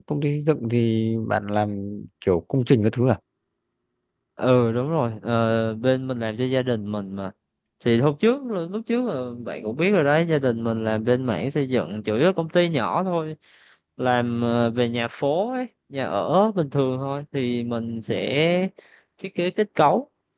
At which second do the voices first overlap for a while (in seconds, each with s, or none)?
none